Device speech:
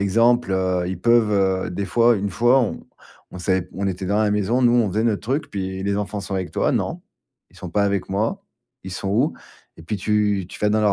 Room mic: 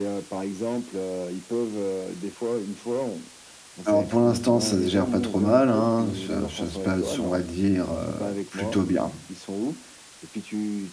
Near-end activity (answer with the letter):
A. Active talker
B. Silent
A